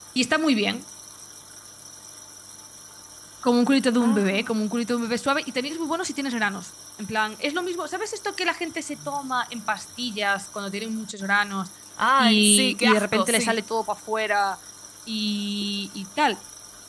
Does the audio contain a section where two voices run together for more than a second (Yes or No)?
Yes